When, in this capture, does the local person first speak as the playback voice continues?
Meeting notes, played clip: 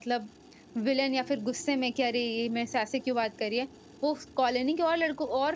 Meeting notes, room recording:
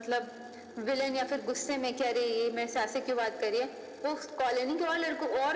none

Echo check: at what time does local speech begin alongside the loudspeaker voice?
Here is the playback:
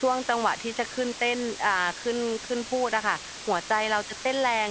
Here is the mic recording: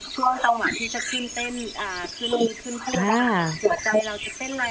3.0 s

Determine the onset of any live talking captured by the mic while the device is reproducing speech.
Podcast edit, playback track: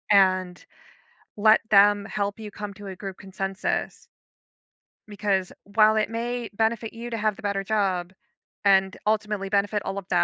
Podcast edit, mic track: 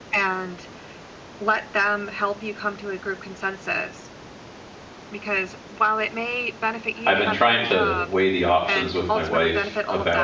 7.0 s

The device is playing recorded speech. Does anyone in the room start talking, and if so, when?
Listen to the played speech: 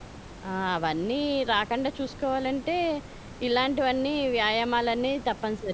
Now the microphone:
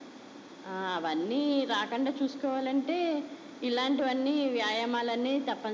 none

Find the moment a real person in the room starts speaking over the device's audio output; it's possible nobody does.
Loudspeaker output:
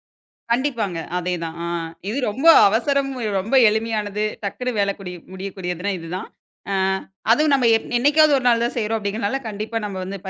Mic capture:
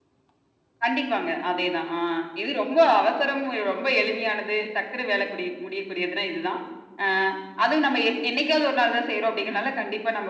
none

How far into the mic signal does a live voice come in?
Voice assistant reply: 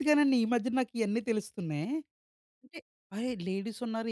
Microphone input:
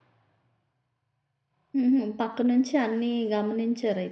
1.8 s

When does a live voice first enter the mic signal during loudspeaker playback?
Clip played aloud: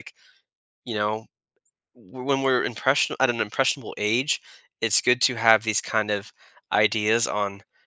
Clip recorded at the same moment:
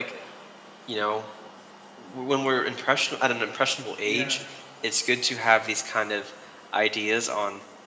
4.0 s

